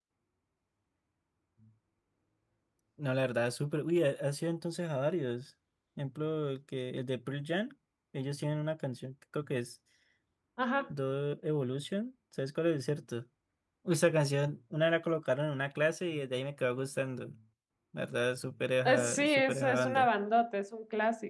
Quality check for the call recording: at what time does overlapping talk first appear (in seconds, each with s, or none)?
18.9 s